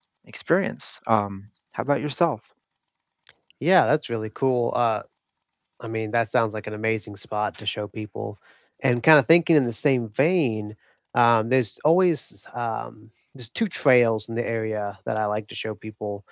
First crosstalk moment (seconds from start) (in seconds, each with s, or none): none